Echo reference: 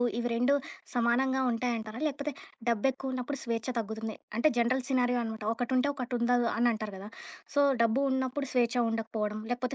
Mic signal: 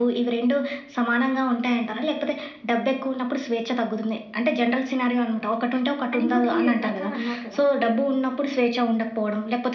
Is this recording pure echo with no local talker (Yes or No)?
No